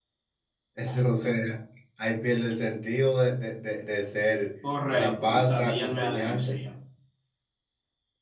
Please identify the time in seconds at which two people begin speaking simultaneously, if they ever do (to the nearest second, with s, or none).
5 s